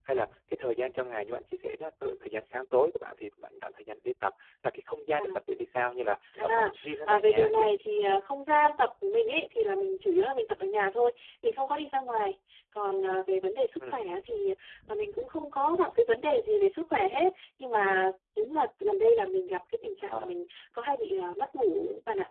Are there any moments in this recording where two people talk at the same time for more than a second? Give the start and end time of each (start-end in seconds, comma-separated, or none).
6.4-7.7